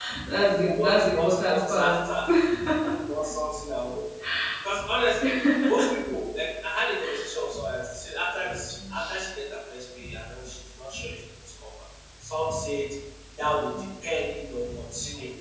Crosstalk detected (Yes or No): Yes